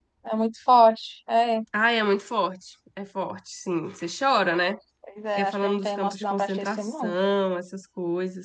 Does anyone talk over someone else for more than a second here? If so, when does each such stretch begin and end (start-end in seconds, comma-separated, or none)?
5.4-7.1